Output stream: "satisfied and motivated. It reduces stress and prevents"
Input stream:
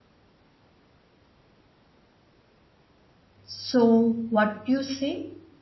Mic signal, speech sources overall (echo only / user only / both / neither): user only